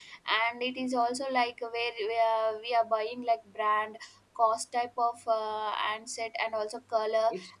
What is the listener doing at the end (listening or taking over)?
listening